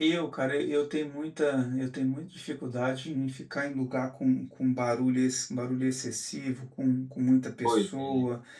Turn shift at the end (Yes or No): No